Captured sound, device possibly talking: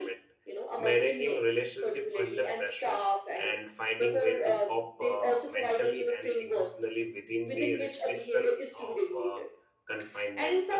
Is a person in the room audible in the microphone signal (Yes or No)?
Yes